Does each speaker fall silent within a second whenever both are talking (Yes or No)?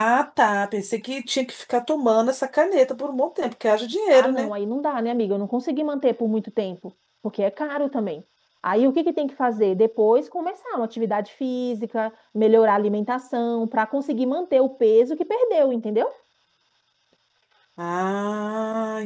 Yes